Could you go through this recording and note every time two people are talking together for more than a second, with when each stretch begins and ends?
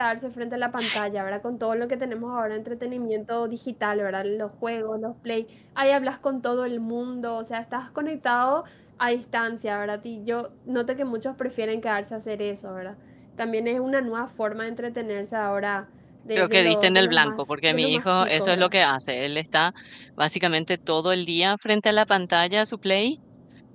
16.4-18.7

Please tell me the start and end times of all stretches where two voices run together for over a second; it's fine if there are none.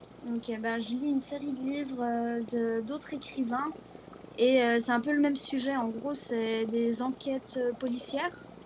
none

